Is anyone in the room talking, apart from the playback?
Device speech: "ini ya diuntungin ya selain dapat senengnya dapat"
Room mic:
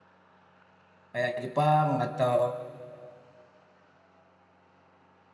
Yes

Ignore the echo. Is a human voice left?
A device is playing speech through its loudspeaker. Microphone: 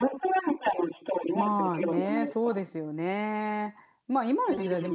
Yes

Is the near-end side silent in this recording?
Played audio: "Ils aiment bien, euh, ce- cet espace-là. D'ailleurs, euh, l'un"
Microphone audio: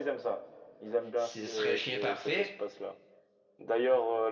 No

